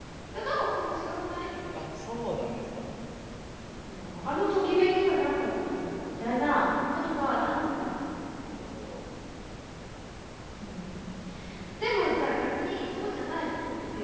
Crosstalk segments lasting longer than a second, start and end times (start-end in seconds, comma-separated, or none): none